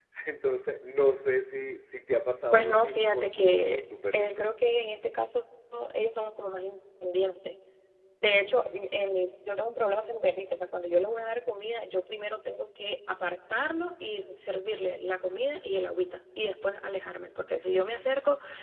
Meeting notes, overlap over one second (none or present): present